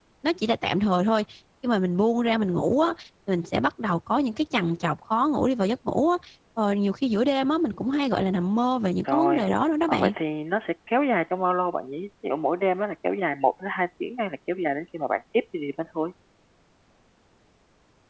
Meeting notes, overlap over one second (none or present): none